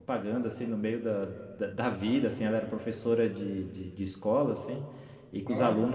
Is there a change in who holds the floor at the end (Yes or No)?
No